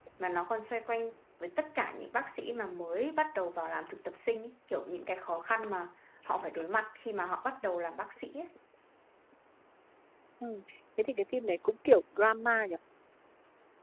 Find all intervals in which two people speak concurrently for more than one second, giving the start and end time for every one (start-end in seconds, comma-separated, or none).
none